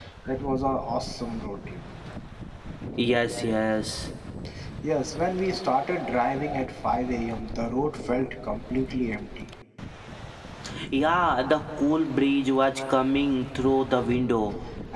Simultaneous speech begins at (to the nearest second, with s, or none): none